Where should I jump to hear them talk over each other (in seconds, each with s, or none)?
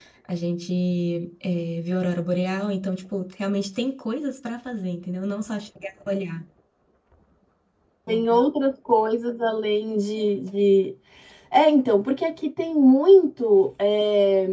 none